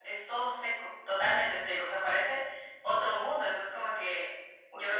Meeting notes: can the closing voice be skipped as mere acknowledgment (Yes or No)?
Yes